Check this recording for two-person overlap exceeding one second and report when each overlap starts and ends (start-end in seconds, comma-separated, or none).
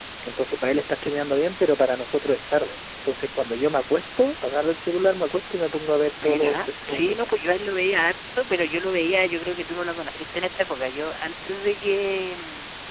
6.2-7.5